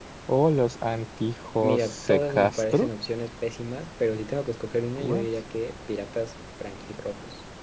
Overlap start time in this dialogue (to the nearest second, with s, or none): 2 s